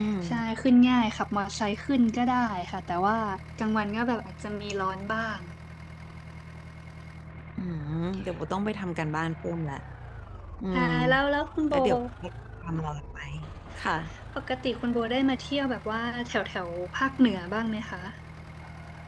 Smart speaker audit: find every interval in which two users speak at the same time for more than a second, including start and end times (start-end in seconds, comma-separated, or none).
none